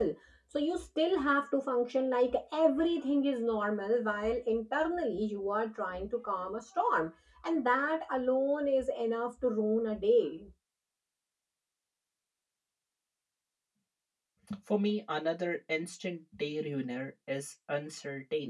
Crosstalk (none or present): none